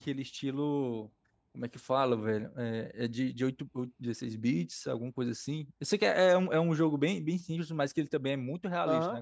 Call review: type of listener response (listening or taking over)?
taking over